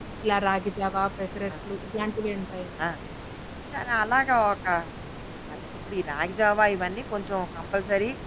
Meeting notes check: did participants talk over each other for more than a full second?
No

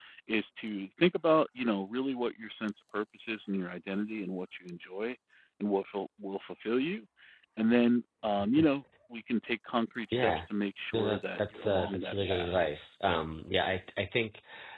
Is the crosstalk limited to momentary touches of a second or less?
No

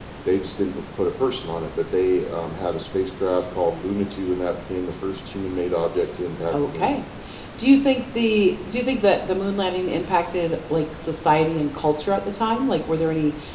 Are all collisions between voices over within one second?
Yes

